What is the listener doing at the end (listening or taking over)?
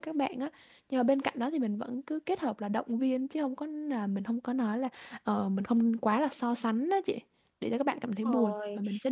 taking over